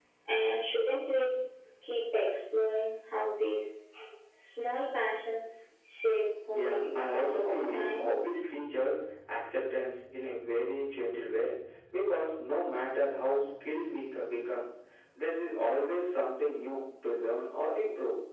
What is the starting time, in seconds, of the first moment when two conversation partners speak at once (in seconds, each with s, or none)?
6.5 s